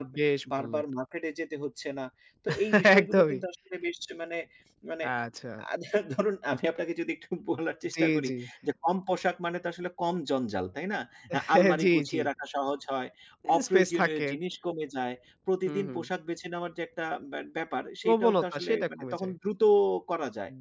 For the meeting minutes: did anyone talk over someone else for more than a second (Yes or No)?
Yes